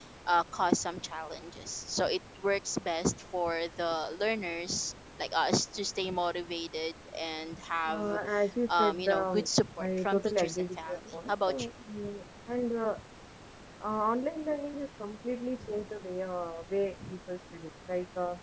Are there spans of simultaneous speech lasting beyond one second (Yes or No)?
Yes